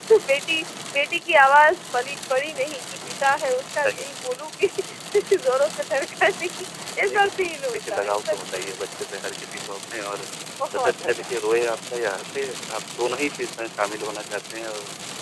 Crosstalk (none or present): present